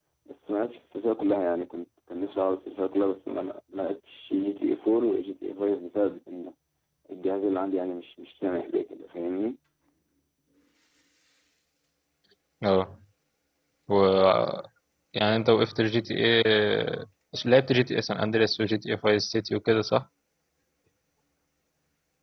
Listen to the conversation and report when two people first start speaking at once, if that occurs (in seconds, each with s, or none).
none